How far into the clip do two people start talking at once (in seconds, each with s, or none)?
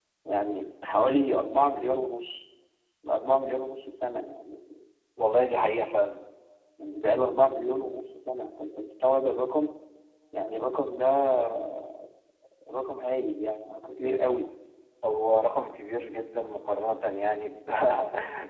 none